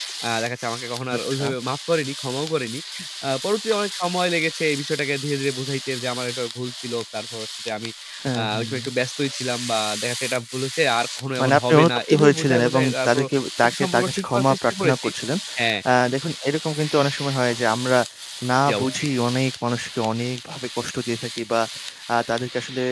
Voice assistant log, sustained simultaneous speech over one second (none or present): present